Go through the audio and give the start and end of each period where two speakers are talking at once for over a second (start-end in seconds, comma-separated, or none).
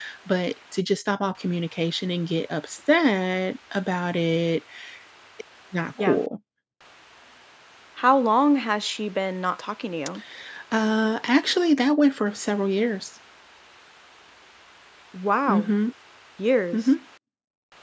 none